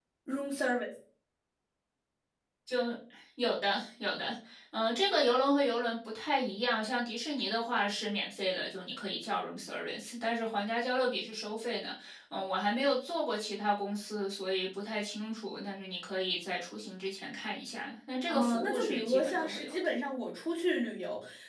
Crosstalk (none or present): present